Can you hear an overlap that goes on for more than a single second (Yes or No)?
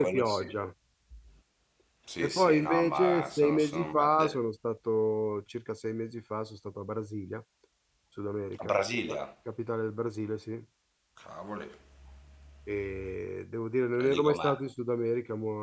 Yes